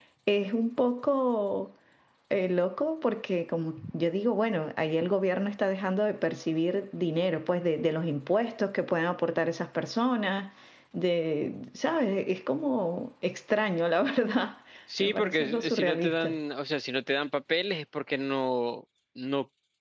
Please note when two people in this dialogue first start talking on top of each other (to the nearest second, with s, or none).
15 s